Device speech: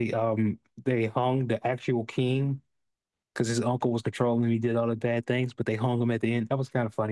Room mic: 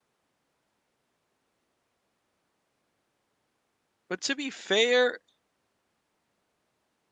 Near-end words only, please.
But to be fair,

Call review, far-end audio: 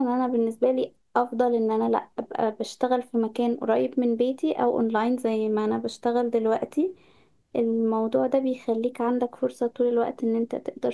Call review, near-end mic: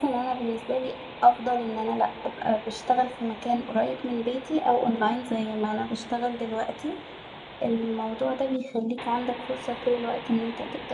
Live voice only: none

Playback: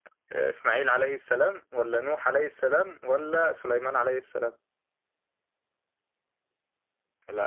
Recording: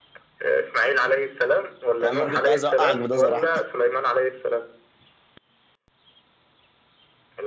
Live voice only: يعني انا كنت عايز اوقعك بده صراحة

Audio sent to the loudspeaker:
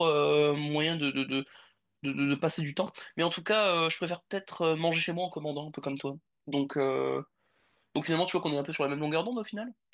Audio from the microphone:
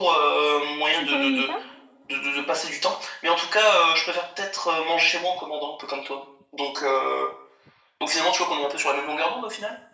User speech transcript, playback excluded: Tu t'ennuies pas?

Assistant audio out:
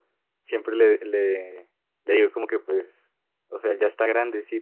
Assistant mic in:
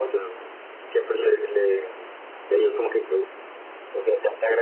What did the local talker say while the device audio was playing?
none

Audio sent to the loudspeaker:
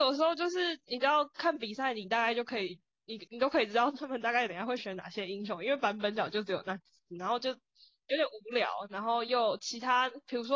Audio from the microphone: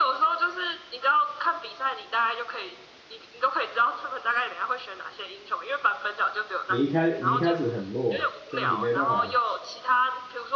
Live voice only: 你一开你一开始很弱，所以你没办法

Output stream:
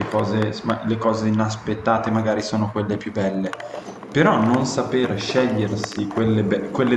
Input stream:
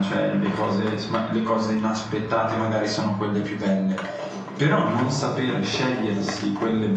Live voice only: none

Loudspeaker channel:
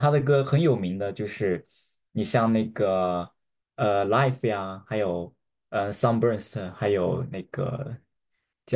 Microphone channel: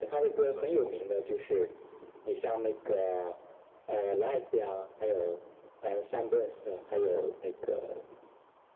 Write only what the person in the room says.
none

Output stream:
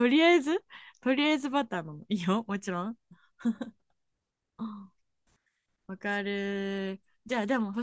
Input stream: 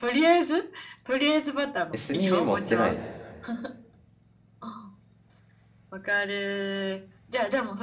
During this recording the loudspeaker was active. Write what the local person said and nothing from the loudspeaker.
え、炭持ってない

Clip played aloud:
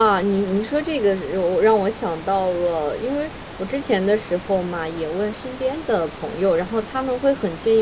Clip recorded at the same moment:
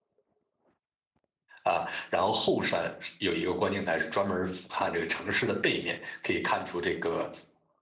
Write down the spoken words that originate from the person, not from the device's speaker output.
啊，然后后山有一个观景台是专门俯瞰这个城市的背面，可以看出这个

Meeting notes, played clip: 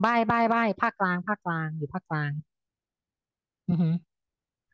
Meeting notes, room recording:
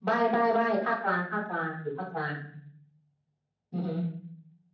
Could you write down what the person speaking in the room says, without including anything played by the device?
none

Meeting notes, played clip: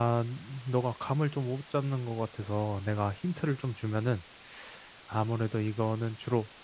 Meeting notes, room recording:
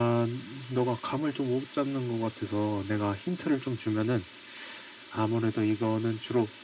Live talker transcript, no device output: none

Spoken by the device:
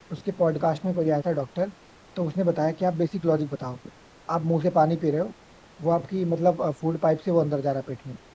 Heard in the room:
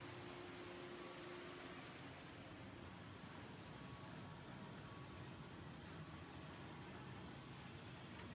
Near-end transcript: none

